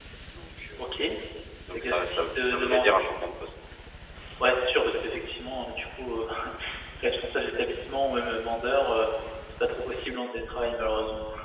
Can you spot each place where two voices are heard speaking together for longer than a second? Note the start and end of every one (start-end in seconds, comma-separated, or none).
1.7-3.0